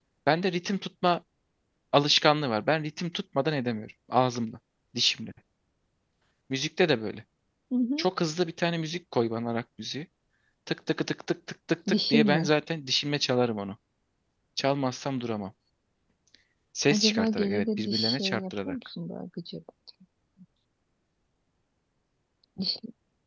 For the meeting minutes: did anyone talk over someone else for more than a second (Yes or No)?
Yes